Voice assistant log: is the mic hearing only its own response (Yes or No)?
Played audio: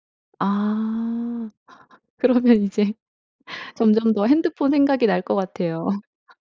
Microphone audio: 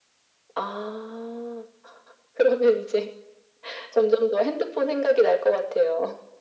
Yes